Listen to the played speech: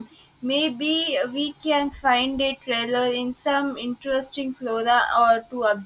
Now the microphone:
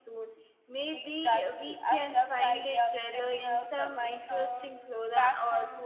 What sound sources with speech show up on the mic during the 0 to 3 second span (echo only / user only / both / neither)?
both